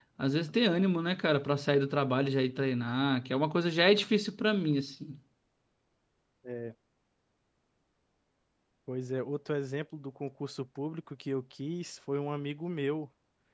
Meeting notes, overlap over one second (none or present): none